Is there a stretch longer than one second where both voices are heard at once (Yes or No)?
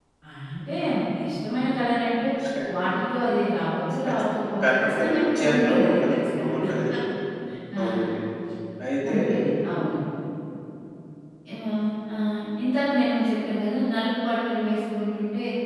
Yes